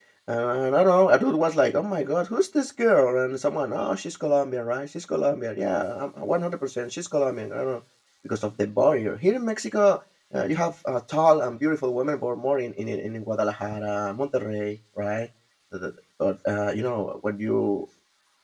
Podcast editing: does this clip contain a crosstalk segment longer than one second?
No

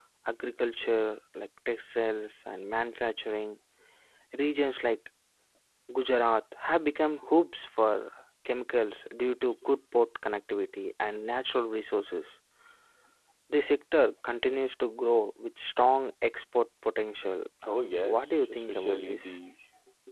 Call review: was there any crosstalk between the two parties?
Yes, from 17.6 s

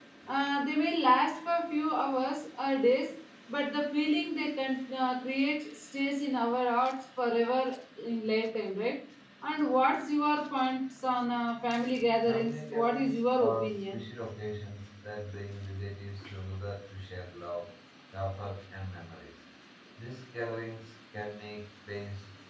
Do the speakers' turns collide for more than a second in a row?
Yes, from 12.3 s

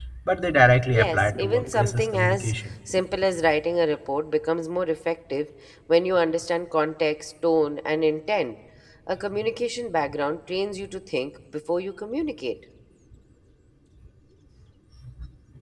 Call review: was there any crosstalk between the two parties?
Yes, from 0.9 s

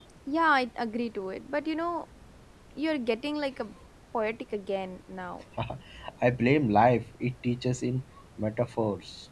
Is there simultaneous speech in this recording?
No

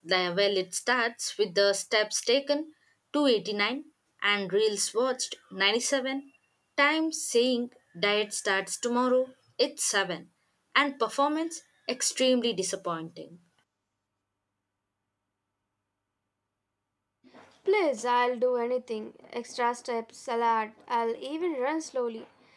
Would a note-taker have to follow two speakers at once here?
No

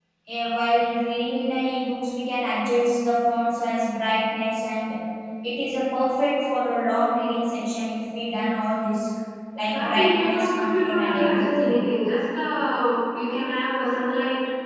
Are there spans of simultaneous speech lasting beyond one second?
Yes, from 9.7 s

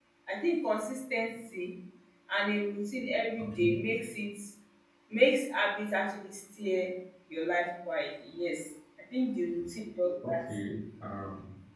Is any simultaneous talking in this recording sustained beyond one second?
No

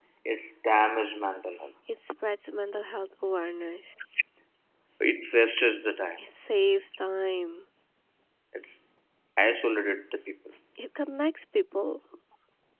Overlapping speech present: No

